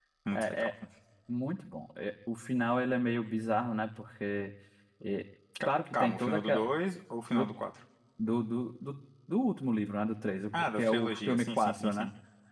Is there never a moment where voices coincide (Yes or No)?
No